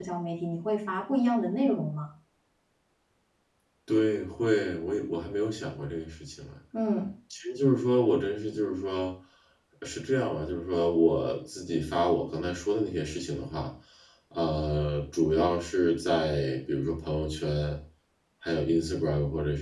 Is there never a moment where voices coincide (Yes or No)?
Yes